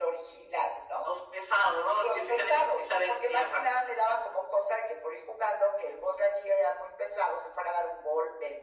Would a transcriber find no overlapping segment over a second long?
No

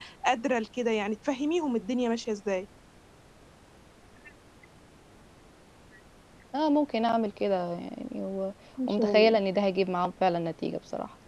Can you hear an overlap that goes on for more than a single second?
No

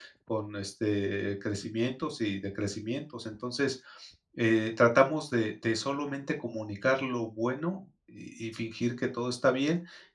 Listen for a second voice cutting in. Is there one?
No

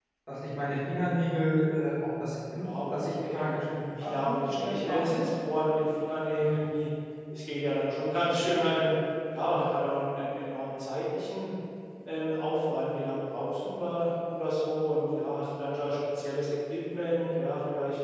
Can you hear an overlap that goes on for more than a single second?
Yes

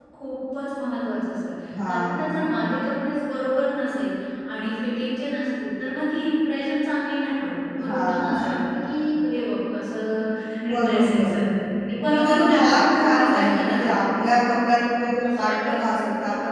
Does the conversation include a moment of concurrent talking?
Yes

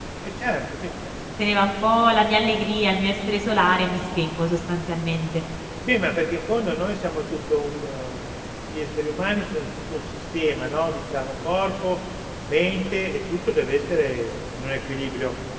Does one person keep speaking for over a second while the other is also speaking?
No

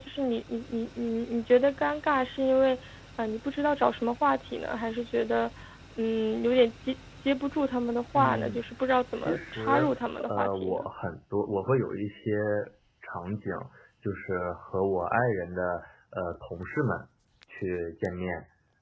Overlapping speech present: Yes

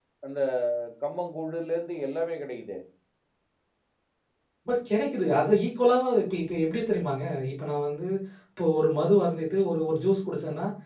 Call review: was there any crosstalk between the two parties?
No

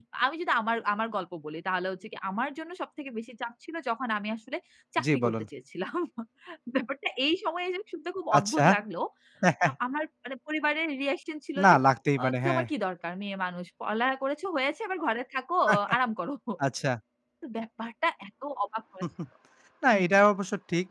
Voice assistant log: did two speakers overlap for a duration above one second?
No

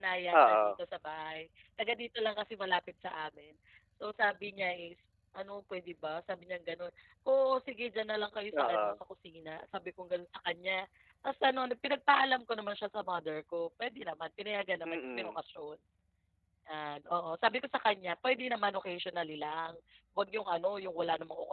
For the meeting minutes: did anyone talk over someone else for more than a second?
No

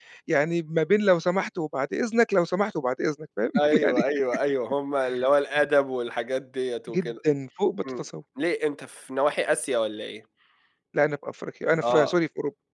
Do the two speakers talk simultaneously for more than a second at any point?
No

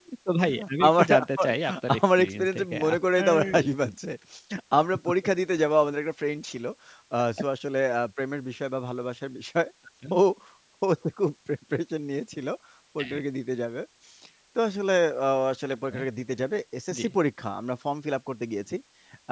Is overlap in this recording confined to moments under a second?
No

